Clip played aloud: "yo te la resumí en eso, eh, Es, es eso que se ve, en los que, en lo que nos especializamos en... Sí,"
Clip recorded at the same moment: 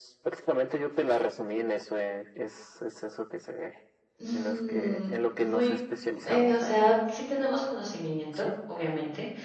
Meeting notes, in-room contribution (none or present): present